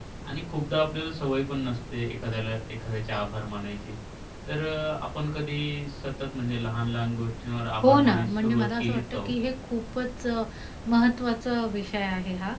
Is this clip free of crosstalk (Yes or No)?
No